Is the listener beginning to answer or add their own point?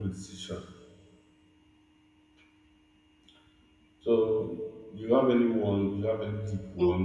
Yes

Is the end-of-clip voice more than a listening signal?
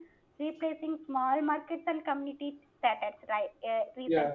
No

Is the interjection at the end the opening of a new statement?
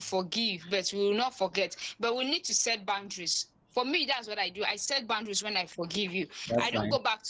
No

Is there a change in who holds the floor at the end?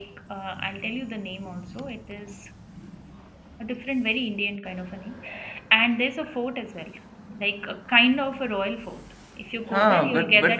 Yes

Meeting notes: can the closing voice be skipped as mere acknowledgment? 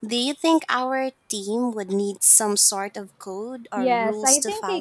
No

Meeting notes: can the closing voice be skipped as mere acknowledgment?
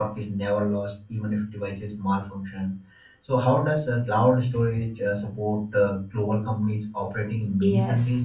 No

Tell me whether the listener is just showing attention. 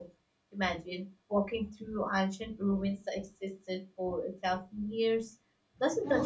No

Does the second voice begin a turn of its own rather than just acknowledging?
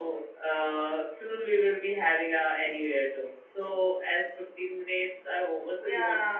Yes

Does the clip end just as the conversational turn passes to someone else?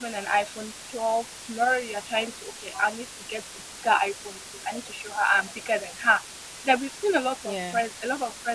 No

